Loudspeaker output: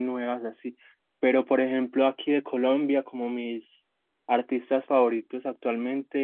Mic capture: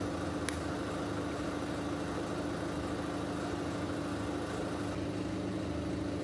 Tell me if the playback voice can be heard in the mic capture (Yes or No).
No